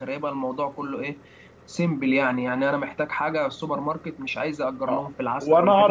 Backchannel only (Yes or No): No